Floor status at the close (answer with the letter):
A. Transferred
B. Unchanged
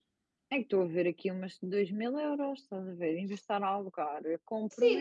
A